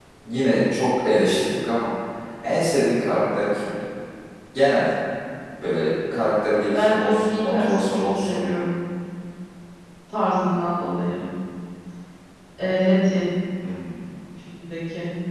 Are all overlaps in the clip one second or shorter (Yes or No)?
No